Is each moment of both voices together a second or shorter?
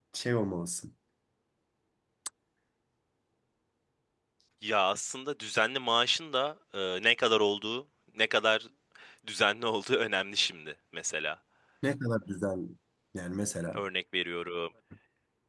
Yes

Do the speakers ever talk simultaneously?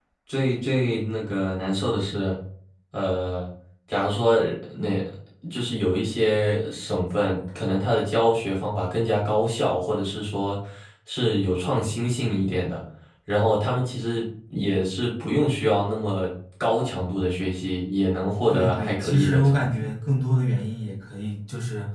Yes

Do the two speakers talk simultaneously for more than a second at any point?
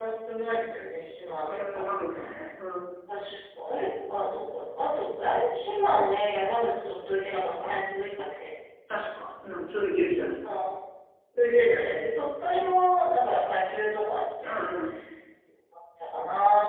No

